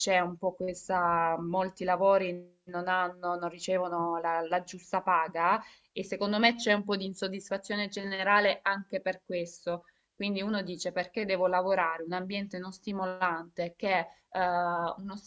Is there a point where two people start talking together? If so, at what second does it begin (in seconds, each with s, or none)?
none